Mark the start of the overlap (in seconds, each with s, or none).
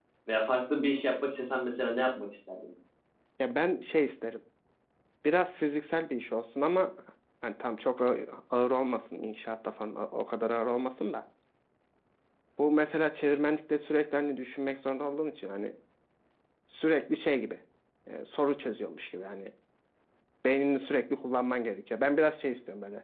none